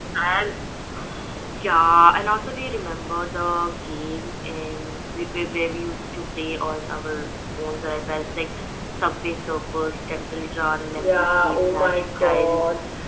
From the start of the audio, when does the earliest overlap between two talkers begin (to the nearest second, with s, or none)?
11 s